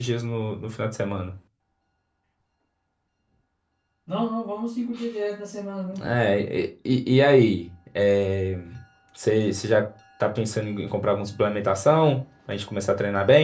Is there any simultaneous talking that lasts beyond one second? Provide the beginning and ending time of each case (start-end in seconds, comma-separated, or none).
none